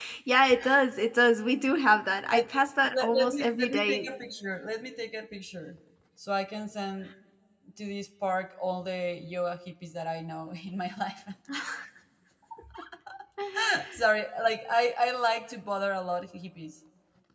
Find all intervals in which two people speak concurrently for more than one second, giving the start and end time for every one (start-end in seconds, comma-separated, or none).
2.9-4.1